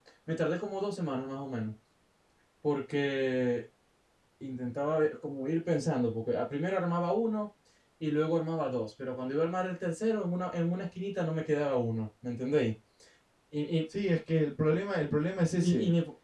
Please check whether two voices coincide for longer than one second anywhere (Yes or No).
No